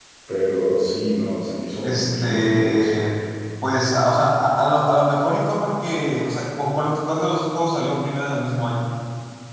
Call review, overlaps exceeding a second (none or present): present